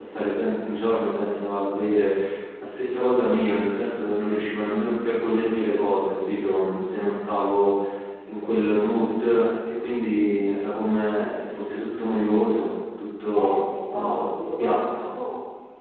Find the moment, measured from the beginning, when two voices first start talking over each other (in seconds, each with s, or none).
13.4 s